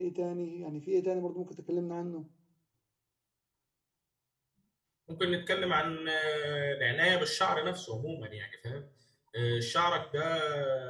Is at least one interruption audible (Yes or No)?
No